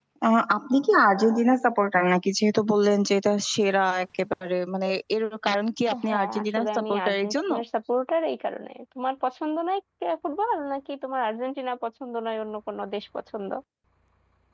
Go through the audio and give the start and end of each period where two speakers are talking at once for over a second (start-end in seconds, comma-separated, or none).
6.1-7.5